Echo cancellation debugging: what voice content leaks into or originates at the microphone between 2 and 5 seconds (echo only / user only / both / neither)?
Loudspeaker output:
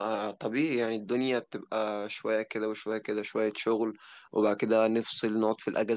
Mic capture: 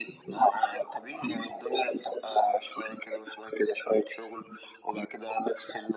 echo only